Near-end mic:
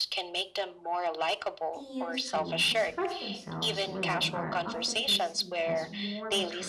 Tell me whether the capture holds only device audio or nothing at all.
No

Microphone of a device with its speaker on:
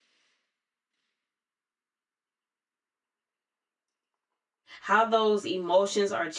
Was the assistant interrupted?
Yes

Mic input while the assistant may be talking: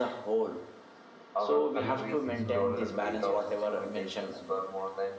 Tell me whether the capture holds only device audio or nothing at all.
No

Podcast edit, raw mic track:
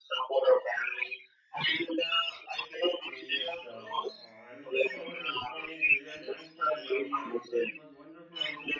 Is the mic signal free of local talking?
No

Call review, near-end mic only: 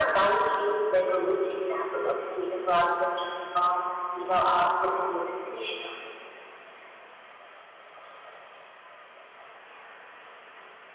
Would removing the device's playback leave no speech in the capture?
Yes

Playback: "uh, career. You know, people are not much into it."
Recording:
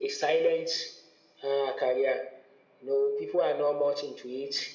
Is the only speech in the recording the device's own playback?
Yes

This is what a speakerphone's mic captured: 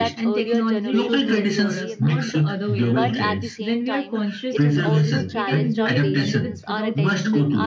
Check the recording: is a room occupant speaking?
Yes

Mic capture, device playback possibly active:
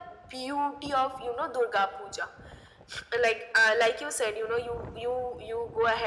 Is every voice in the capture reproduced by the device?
Yes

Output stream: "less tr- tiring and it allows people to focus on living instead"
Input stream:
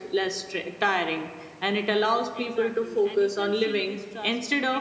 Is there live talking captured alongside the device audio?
Yes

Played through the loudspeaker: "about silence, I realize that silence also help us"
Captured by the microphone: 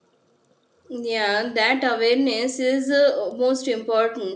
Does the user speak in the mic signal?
Yes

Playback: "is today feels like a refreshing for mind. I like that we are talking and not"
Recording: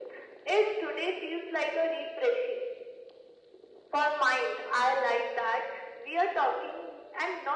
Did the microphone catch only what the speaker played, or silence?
Yes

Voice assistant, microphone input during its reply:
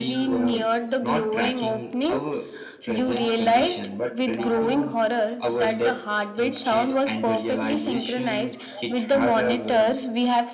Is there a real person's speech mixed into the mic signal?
No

